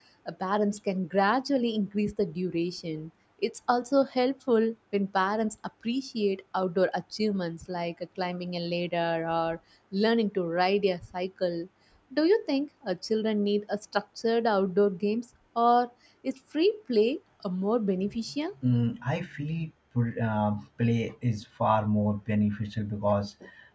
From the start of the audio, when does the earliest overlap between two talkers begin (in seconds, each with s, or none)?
none